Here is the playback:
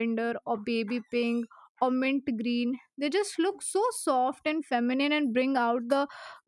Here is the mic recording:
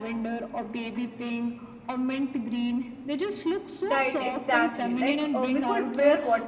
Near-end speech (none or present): present